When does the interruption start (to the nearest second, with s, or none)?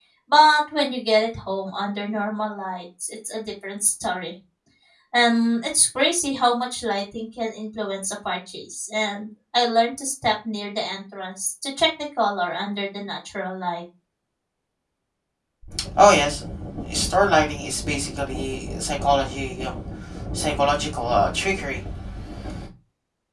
none